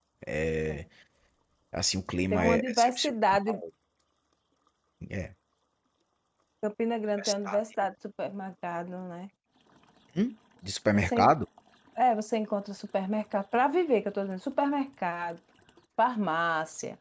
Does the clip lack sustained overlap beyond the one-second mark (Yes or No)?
No